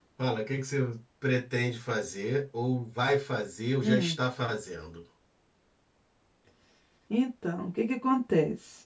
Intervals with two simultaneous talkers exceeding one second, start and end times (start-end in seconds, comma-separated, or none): none